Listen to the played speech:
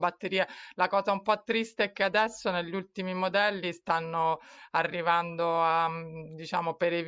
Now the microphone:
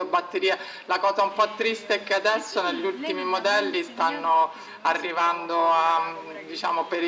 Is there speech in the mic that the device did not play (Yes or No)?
Yes